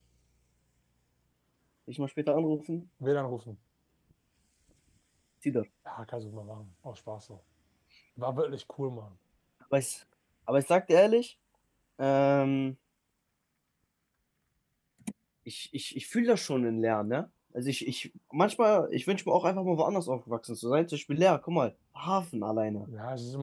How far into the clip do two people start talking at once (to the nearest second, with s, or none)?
none